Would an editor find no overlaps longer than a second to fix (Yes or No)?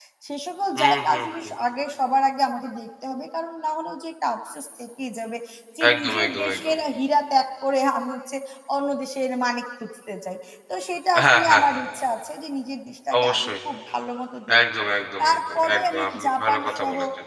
No